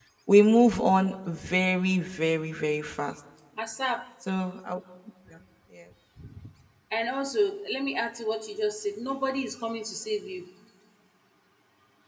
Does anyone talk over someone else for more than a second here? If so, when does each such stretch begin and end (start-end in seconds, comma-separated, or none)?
none